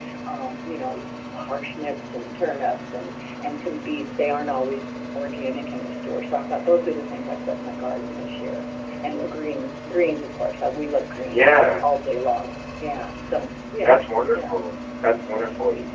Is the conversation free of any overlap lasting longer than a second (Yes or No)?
Yes